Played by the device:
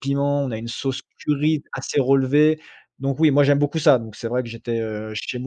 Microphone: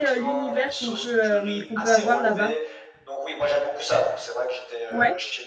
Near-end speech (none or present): present